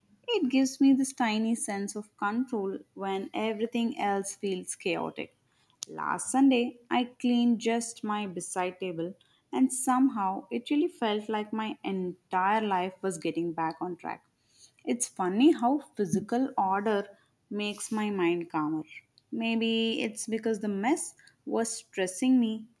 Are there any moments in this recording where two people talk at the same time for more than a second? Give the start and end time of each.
none

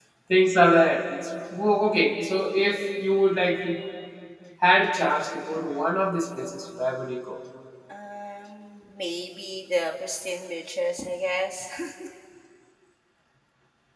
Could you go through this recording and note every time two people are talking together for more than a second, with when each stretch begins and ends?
none

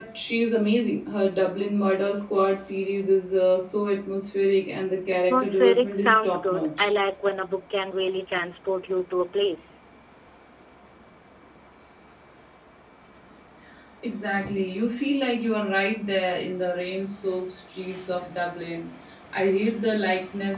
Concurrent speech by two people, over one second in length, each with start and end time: 5.3-6.9

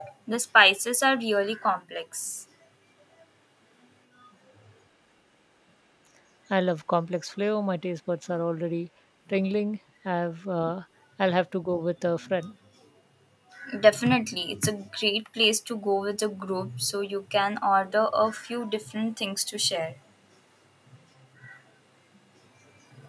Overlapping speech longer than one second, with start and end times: none

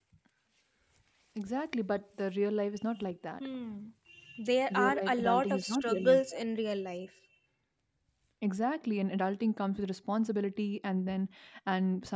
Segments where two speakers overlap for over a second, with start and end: 4.7-6.4

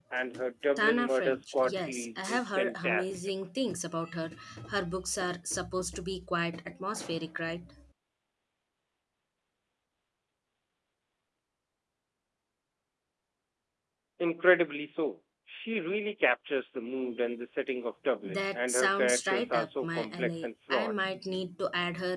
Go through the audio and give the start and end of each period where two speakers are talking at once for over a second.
0.8-3.3, 18.2-20.9

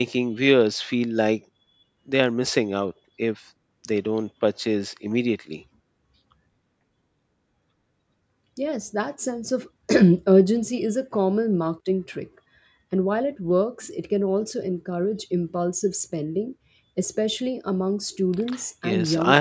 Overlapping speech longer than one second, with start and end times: none

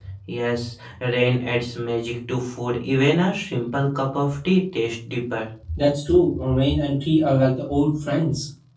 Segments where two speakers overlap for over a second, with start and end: none

